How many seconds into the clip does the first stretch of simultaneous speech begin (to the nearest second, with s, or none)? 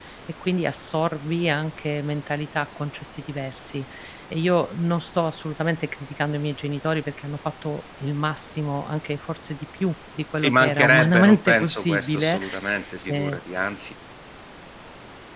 10 s